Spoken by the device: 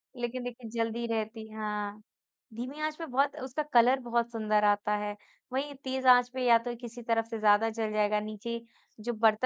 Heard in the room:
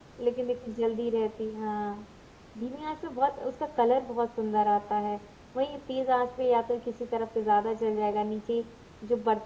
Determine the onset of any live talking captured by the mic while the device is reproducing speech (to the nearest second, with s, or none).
none